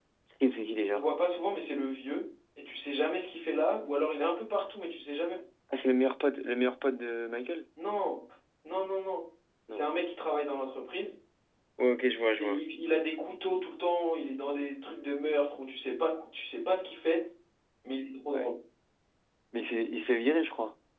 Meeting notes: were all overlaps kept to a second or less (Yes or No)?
Yes